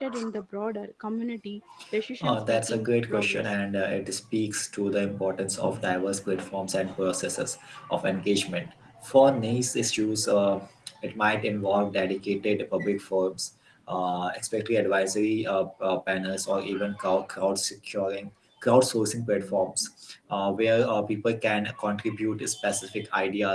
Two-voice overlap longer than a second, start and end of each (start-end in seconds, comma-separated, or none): 2.2-3.5